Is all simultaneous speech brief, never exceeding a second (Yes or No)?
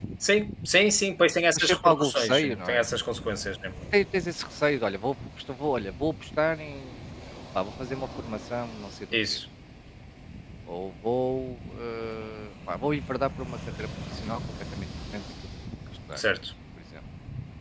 No